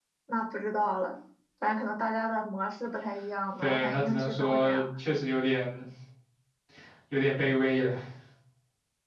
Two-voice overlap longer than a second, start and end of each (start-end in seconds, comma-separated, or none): 3.6-4.8